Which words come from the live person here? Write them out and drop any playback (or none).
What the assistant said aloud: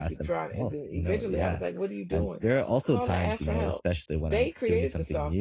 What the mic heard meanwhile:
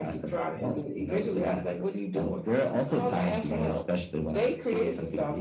none